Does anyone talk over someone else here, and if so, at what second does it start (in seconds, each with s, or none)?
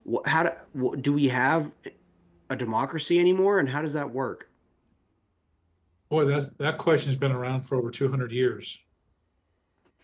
none